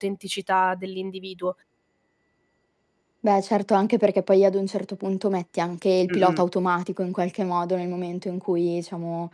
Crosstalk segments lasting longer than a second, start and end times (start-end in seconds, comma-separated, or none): none